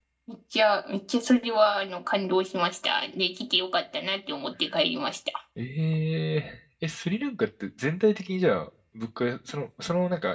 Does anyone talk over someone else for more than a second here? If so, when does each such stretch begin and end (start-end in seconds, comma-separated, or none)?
none